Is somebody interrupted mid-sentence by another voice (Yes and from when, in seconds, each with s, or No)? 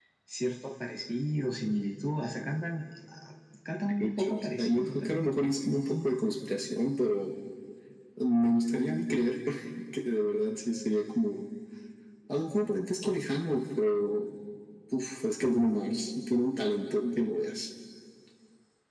Yes, from 3.8 s